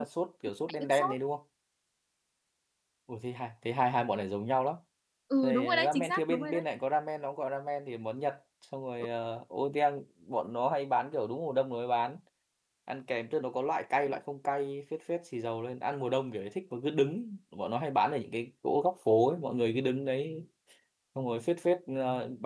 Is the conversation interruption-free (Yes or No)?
No